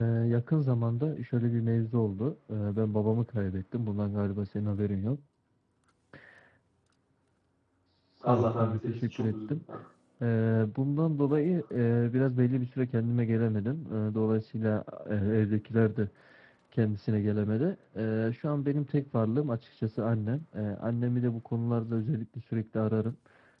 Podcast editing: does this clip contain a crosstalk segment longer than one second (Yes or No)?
Yes